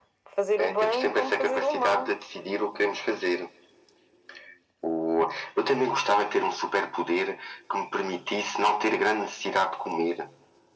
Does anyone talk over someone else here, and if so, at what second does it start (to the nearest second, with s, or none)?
1 s